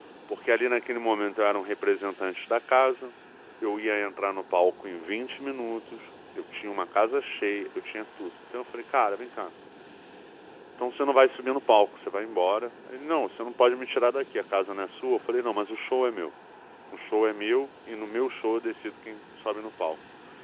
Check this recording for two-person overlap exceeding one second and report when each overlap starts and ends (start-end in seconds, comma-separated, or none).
none